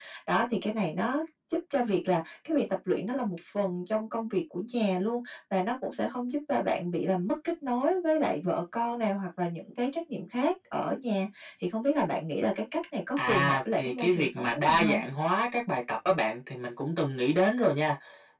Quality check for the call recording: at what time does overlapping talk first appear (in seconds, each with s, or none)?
13.2 s